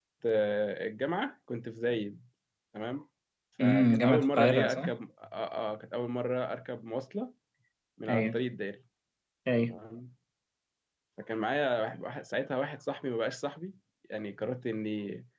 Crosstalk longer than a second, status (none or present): present